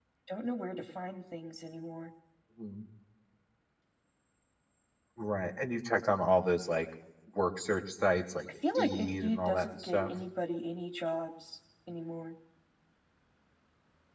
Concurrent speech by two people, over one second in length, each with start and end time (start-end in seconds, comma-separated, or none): 8.8-10.1